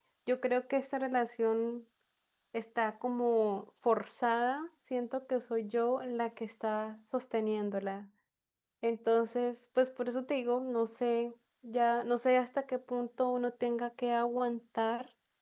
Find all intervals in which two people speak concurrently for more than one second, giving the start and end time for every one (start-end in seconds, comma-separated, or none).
none